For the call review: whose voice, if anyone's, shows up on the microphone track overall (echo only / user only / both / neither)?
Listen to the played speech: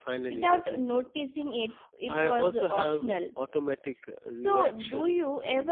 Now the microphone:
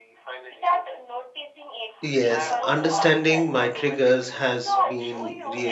both